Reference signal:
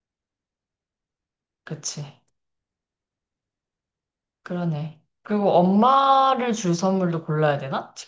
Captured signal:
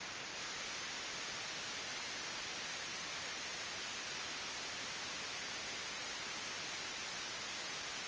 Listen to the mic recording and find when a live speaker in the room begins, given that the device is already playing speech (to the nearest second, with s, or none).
none